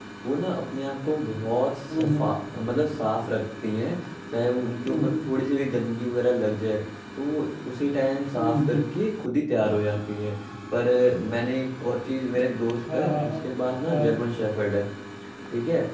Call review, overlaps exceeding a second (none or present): none